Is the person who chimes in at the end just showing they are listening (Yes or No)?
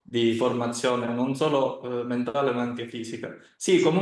Yes